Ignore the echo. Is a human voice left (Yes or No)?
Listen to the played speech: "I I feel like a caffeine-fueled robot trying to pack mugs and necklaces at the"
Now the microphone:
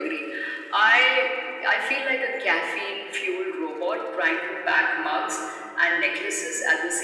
No